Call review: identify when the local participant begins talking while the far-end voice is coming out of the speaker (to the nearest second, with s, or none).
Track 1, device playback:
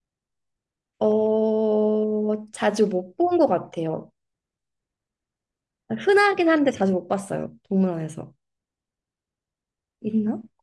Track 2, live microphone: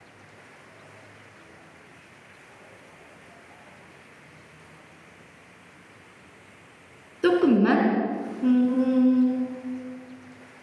7 s